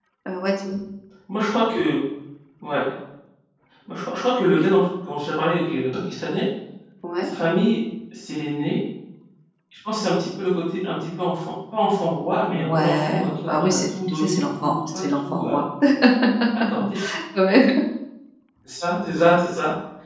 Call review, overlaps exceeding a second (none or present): present